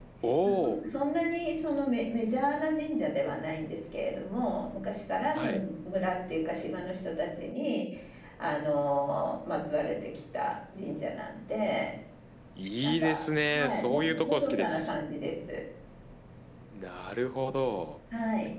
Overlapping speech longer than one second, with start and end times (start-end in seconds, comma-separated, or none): 13.5-15.0